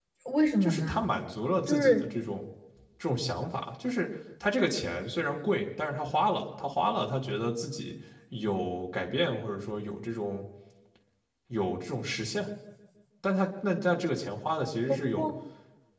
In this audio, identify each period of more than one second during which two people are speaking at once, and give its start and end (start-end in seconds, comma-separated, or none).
none